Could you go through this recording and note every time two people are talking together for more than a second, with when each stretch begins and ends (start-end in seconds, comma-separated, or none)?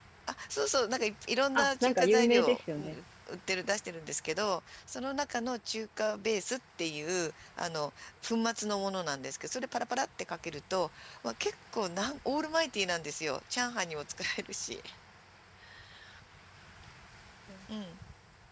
1.6-3.0